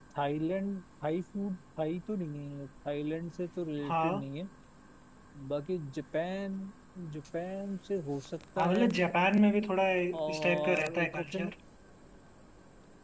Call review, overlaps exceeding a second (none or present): present